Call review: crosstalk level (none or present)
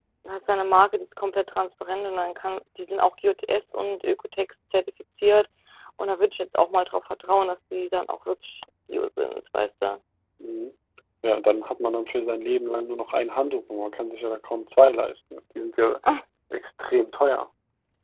none